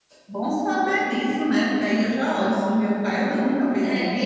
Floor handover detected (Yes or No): Yes